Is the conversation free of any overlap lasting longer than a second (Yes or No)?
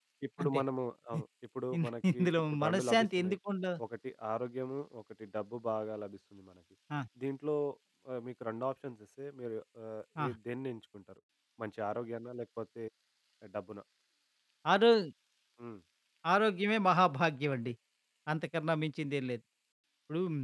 No